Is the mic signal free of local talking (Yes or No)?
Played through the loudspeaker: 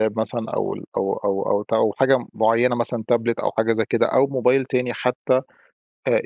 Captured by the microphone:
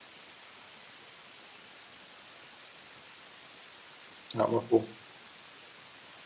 No